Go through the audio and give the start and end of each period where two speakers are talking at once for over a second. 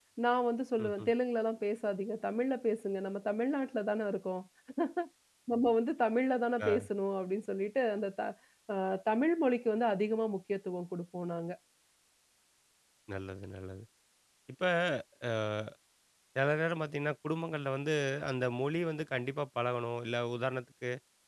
none

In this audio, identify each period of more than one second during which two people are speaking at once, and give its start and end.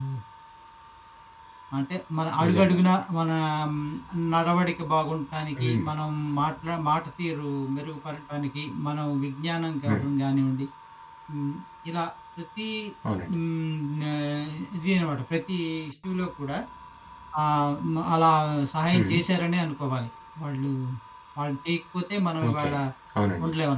none

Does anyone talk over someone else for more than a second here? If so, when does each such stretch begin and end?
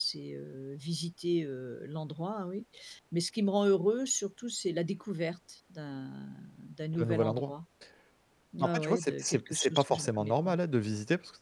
8.6-10.5

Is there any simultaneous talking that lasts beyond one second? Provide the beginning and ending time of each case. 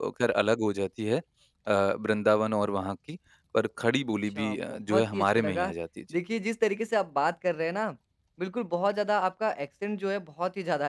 4.4-5.7

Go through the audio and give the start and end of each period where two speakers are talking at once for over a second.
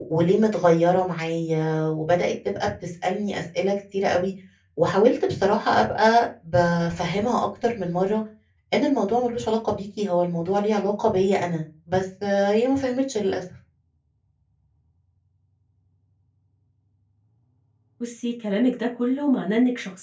none

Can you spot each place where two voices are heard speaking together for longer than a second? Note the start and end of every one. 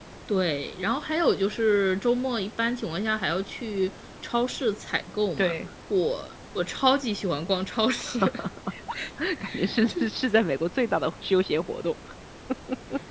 none

